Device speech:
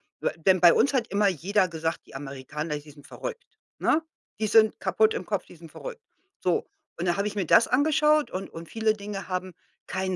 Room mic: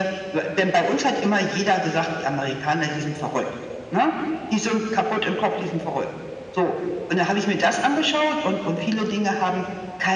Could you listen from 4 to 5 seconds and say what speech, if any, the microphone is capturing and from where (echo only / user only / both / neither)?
echo only